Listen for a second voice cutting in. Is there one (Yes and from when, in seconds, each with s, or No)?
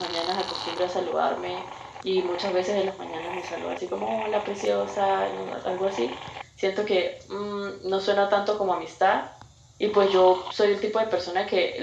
No